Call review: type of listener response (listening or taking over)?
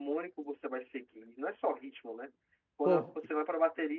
listening